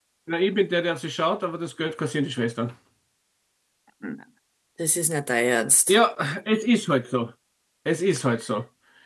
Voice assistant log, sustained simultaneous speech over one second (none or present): none